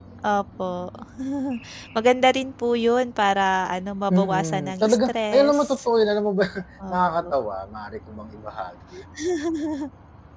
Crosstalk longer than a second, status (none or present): present